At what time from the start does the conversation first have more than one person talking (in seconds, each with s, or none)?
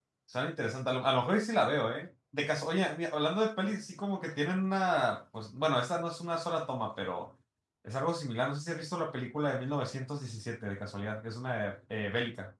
none